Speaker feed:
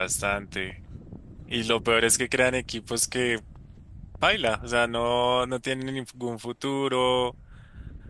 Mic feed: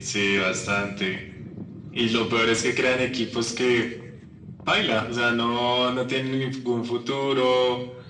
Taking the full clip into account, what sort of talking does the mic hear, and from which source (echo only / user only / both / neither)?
echo only